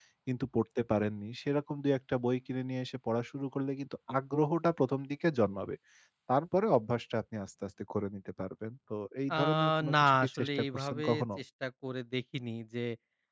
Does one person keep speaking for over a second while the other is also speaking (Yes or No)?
Yes